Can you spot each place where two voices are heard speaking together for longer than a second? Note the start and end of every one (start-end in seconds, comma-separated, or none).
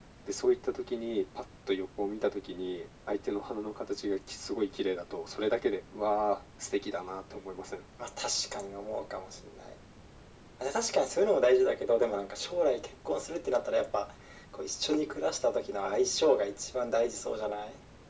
none